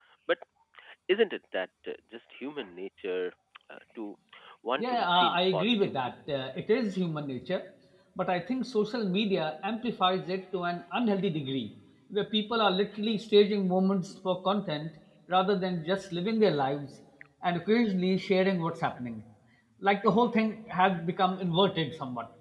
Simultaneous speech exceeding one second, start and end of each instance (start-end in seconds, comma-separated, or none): 4.8-6.1